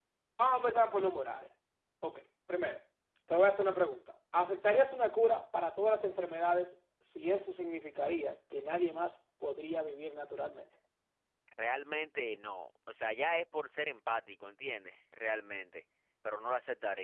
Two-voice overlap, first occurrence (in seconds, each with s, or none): none